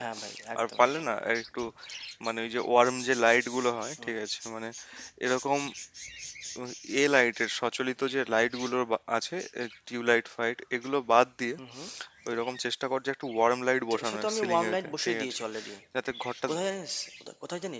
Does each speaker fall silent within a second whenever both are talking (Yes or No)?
No